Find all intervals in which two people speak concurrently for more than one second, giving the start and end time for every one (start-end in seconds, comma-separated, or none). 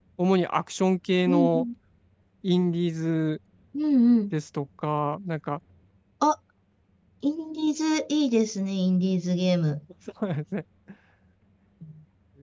none